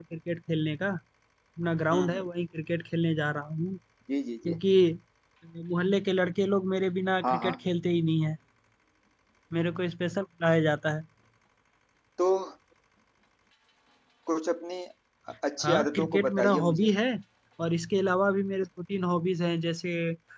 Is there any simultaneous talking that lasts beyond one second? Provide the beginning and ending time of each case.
15.6-16.9

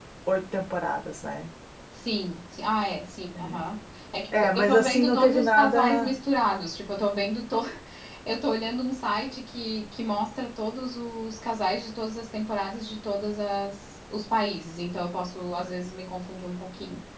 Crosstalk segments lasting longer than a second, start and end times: 4.6-6.1

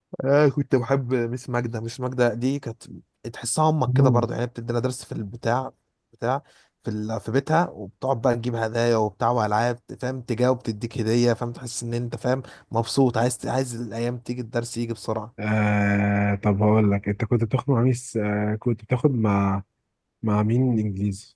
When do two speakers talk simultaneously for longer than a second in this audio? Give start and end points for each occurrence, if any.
none

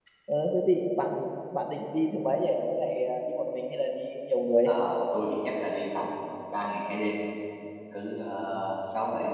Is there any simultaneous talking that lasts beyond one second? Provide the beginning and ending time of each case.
none

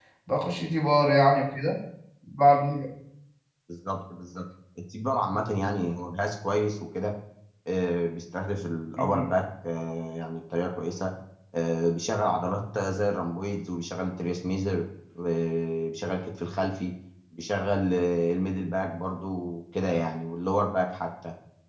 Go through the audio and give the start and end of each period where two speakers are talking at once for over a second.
none

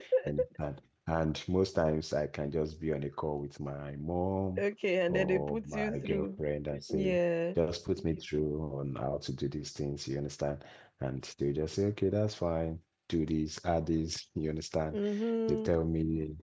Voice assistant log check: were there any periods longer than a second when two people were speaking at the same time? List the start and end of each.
5.1-6.4

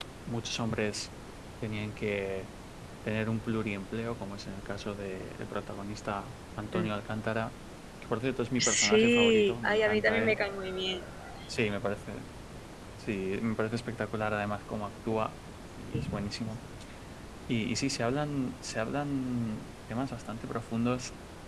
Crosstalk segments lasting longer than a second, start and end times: 8.6-10.4

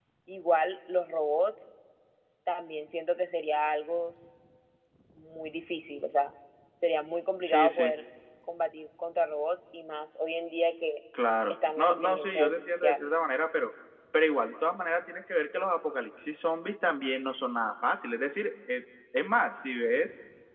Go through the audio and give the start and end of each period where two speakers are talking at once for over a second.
11.5-13.1

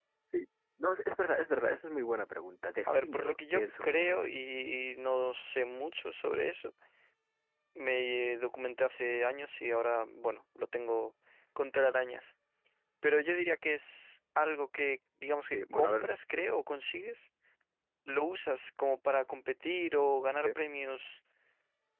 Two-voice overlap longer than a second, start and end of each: 2.9-4.2

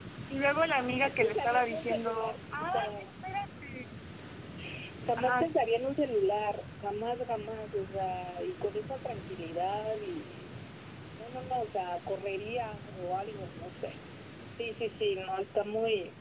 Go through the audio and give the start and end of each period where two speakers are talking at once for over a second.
0.9-2.9

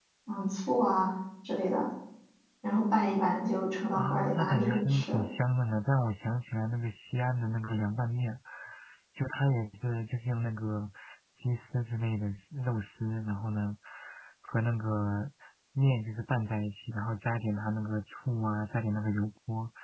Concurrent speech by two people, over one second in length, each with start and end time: 3.9-5.2

